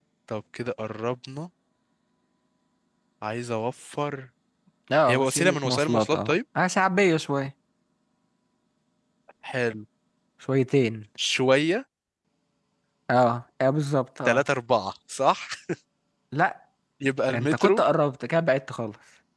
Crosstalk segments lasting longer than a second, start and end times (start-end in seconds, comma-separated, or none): 5.1-6.4